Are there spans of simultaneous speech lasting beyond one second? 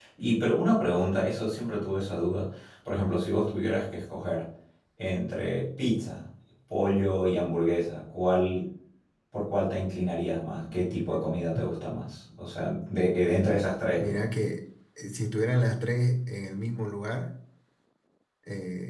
No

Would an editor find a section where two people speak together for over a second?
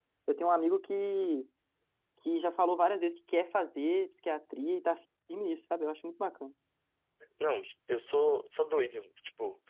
No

